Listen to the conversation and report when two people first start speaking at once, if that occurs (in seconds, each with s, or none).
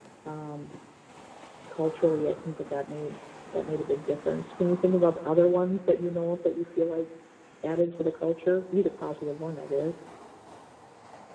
none